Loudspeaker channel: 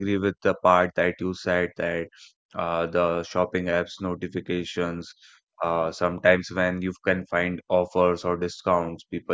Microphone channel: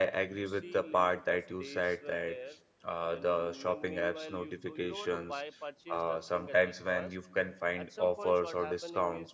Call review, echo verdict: present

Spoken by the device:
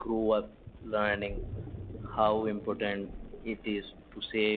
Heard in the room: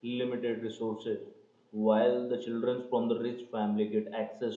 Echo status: none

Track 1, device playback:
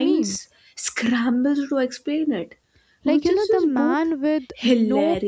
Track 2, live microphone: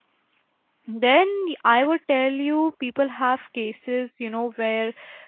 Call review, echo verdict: none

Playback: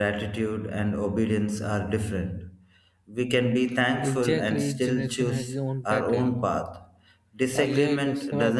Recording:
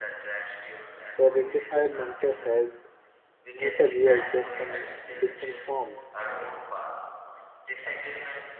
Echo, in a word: present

